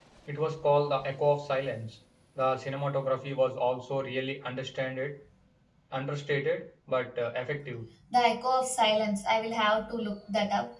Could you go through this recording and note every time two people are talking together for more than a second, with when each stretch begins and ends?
none

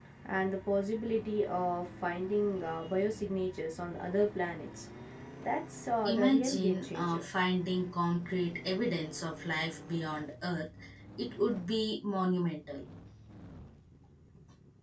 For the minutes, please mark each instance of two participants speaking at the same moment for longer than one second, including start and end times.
6.0-7.3

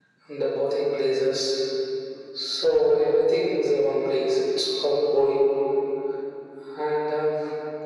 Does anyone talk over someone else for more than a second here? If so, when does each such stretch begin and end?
none

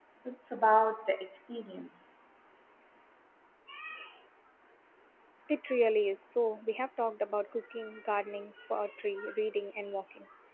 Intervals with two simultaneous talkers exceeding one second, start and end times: none

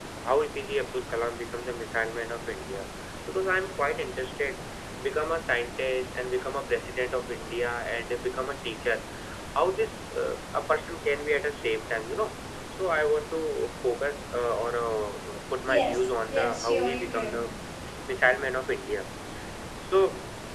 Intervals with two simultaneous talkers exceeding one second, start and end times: 15.7-17.4

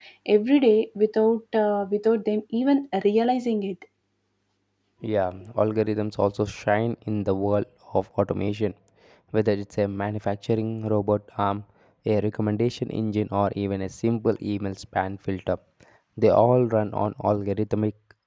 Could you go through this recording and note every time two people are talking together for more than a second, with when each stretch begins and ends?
none

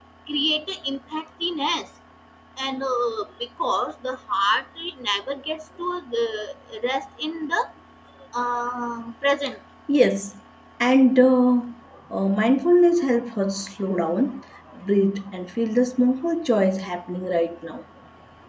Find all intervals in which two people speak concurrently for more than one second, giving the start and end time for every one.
none

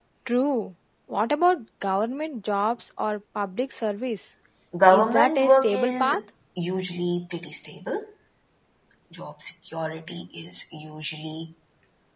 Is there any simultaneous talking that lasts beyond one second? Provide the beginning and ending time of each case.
4.9-6.1

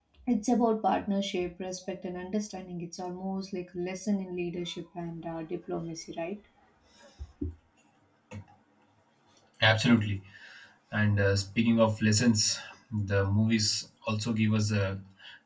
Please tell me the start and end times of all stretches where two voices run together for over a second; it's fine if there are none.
none

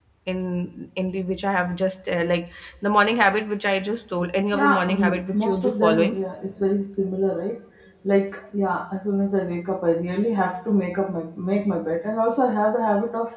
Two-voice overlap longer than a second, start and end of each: 4.5-6.2

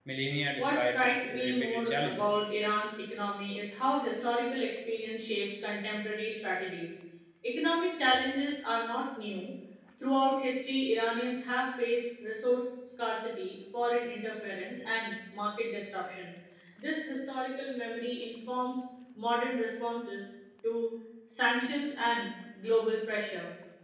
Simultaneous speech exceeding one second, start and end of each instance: 0.6-2.4

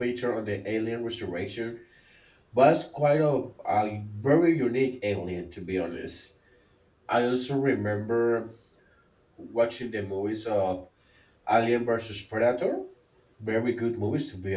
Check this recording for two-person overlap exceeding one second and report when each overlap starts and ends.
none

